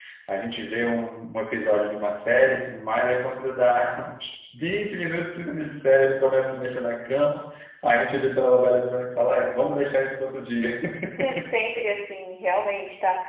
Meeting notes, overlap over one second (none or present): none